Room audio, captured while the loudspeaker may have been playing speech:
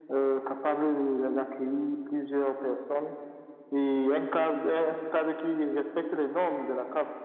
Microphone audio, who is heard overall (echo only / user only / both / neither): echo only